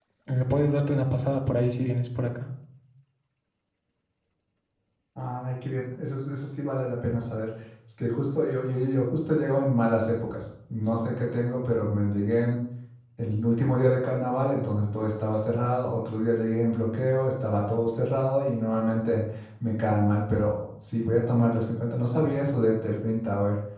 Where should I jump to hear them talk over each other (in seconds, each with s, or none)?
none